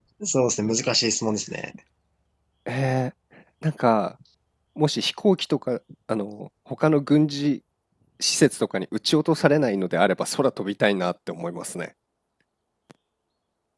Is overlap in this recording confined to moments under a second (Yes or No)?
Yes